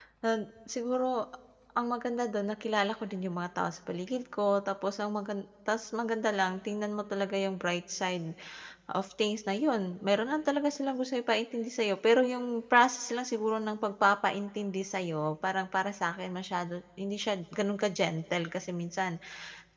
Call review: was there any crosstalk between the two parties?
No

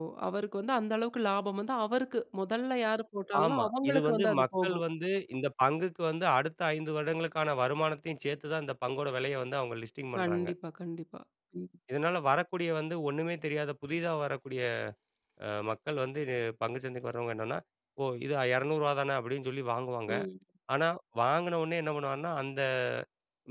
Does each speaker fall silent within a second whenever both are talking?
No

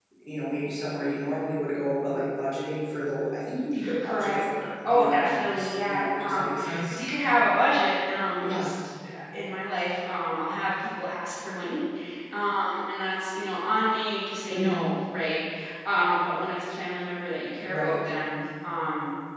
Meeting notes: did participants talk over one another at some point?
Yes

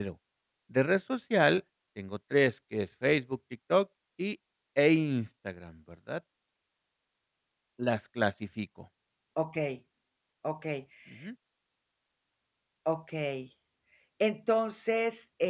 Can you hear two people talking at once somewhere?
No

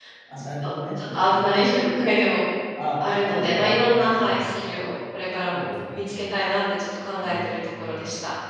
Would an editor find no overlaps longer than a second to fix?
No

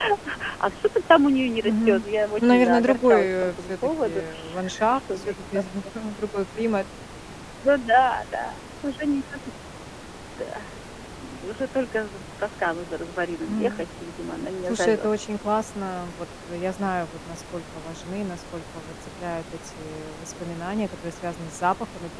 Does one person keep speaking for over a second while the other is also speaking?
Yes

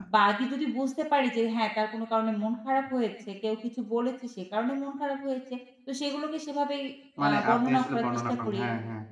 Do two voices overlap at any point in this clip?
Yes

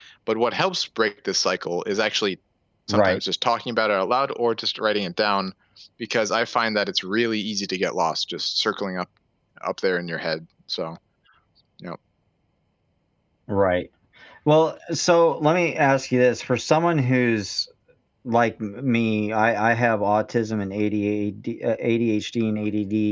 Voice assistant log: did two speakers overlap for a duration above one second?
No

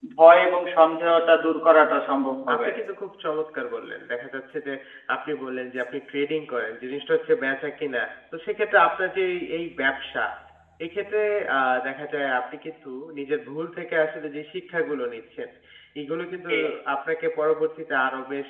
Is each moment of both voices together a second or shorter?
Yes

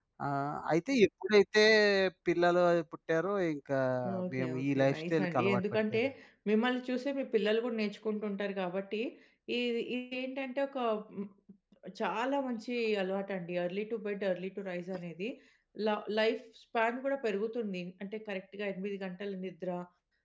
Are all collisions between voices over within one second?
No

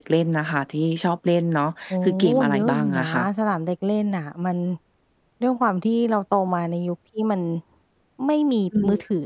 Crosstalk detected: Yes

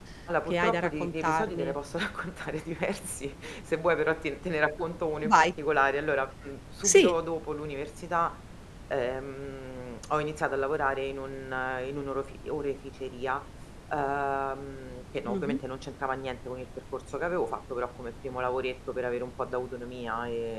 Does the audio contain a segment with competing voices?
Yes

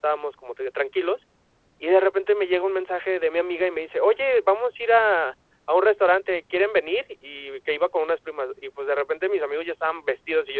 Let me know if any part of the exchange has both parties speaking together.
No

